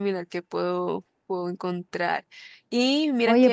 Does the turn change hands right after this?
Yes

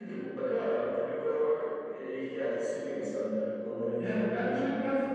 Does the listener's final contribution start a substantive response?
Yes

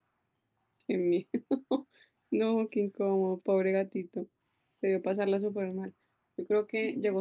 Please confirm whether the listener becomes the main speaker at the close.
No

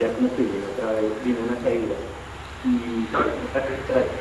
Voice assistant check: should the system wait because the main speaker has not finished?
Yes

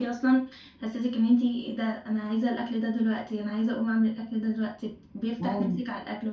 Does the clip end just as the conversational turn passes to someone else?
Yes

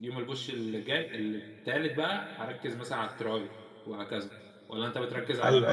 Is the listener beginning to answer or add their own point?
Yes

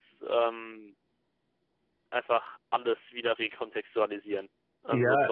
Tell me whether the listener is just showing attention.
No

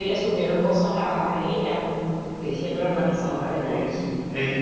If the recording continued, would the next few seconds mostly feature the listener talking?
Yes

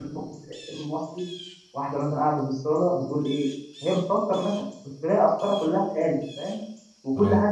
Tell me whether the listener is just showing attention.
Yes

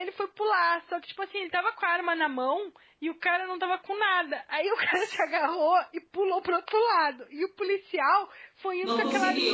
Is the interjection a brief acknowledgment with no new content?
Yes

